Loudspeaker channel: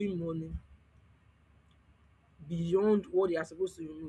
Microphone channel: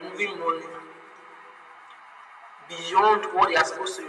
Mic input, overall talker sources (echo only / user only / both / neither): echo only